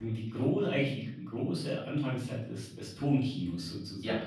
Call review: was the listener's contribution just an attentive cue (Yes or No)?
No